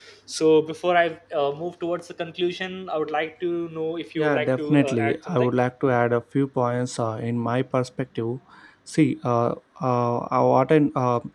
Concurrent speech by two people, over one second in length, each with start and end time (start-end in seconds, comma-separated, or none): 4.2-5.5